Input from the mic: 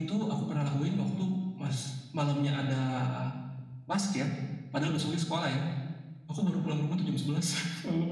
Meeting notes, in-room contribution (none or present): none